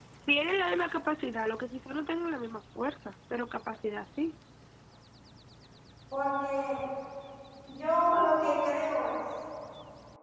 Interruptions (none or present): none